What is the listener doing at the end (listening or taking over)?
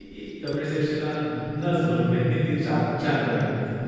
taking over